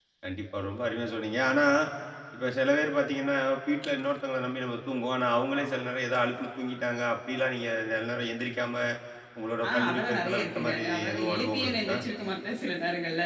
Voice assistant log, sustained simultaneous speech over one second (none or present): present